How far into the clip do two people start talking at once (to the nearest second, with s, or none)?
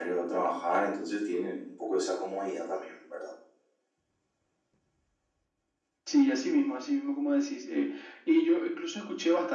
none